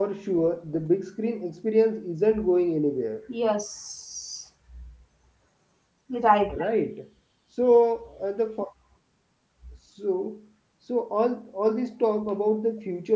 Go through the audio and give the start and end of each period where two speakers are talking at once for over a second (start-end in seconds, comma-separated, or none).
none